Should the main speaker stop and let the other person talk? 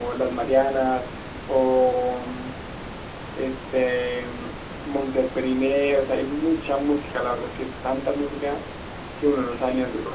Yes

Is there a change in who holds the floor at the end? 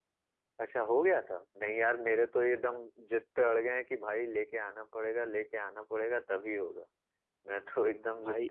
Yes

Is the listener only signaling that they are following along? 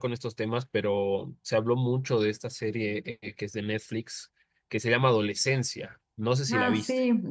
No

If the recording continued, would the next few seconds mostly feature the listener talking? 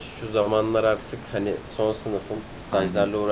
No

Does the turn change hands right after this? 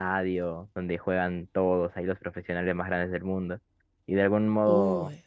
No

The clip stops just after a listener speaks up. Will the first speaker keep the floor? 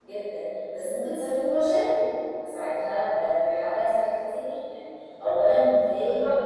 No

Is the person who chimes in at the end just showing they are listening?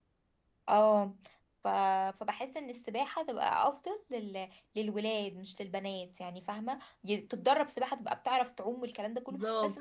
No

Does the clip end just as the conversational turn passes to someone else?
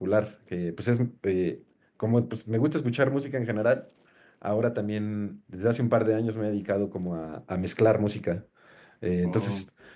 No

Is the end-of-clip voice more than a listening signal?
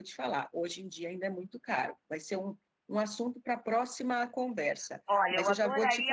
Yes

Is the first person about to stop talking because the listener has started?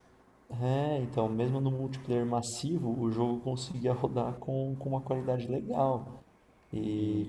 No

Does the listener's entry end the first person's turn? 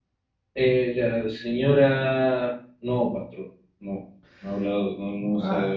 Yes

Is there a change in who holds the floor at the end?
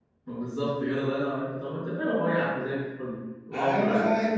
Yes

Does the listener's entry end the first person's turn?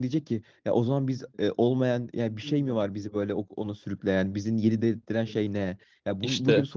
No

